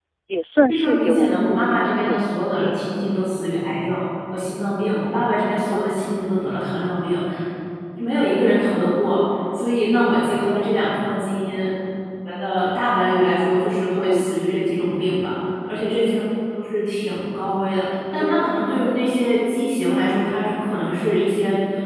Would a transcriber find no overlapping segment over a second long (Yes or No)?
No